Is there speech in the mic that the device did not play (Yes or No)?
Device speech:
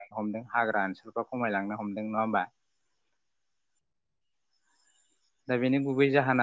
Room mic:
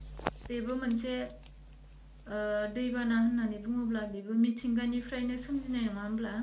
Yes